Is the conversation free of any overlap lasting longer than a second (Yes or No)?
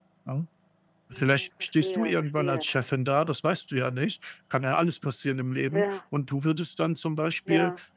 No